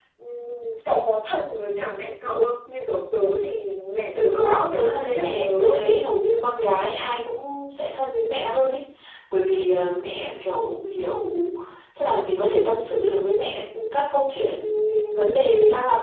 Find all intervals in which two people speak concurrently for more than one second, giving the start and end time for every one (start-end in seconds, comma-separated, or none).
4.1-5.9